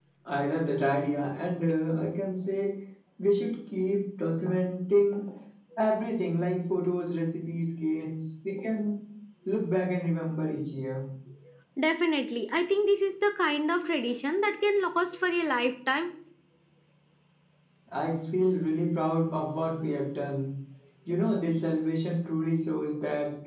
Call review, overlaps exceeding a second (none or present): none